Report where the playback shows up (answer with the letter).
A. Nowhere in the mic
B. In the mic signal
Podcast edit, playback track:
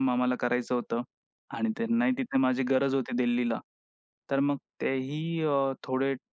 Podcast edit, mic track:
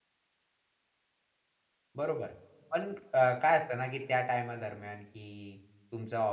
A